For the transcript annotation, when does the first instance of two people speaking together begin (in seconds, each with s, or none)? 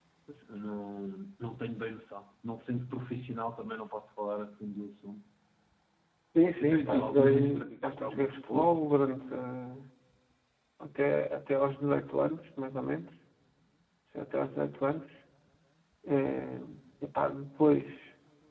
6.6 s